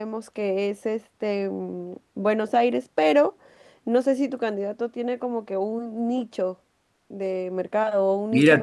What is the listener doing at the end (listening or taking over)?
taking over